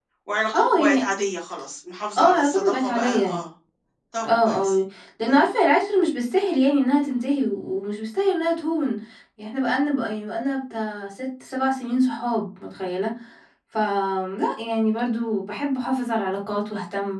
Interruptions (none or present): present